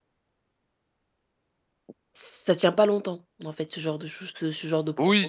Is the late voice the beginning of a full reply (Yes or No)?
Yes